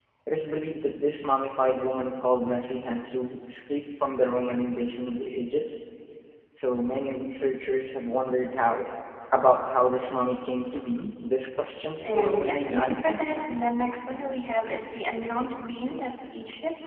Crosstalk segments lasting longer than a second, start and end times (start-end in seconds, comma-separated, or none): 12.0-13.5